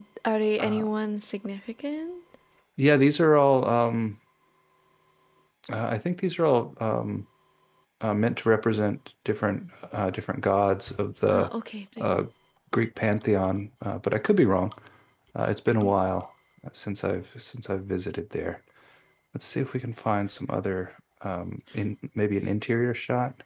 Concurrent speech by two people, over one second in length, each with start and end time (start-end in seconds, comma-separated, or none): none